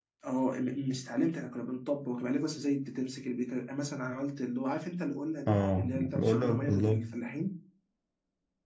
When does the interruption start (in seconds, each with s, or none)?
5.5 s